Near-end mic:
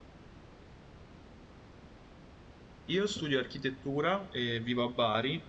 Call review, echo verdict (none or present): none